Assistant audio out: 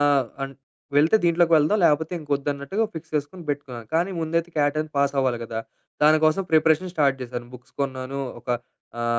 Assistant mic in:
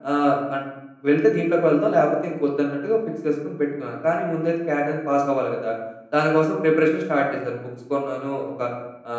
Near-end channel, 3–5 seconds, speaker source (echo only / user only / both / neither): echo only